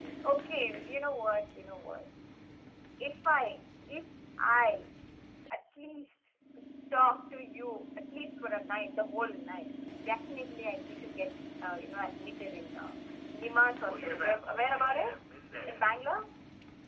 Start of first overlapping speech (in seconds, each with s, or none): 13.8 s